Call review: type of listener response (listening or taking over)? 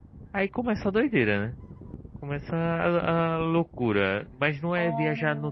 listening